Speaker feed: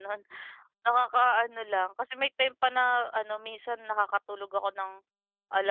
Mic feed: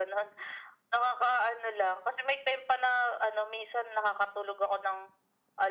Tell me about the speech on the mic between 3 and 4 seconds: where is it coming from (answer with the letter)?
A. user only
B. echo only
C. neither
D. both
B